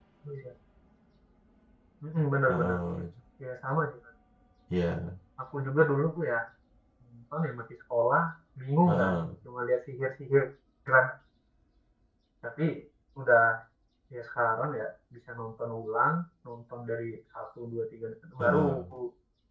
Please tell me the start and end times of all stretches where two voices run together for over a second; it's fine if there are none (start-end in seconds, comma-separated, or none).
none